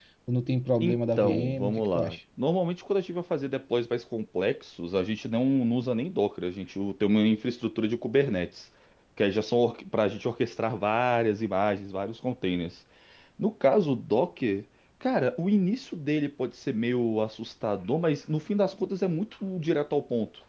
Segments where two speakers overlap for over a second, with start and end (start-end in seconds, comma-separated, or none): 0.8-2.2